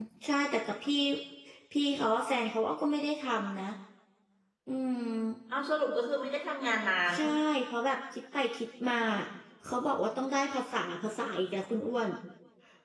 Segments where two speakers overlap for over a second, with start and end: none

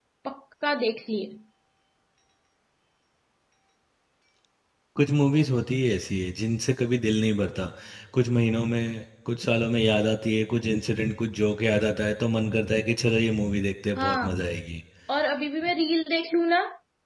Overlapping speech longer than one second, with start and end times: none

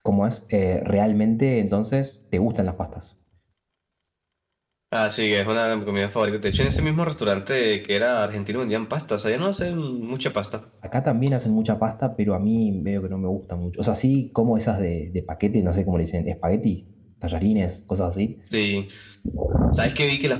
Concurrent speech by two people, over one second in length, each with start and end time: none

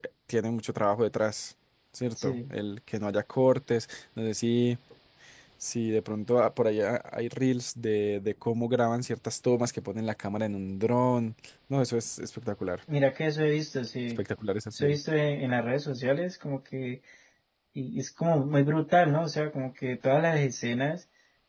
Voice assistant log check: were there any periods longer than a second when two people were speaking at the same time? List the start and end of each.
none

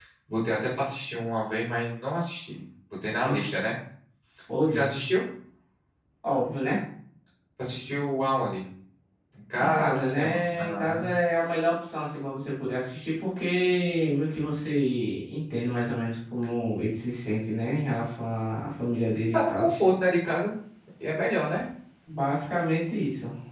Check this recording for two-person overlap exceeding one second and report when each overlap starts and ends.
9.6-11.1

